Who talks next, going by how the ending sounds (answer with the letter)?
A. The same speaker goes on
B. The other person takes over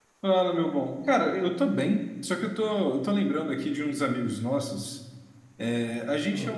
A